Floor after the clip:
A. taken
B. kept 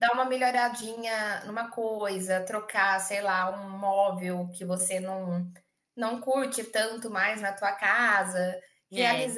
B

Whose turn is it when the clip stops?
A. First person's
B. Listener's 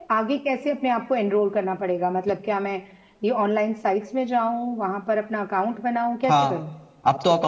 B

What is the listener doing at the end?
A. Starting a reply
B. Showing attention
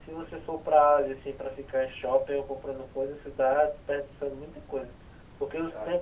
B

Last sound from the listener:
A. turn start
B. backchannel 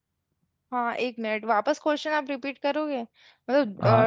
A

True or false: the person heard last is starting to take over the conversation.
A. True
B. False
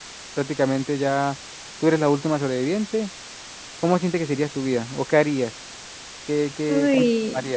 A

